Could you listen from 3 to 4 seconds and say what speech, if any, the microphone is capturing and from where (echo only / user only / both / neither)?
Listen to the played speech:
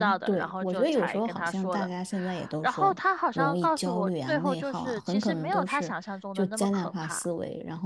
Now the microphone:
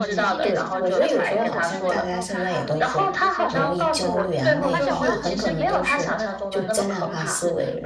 both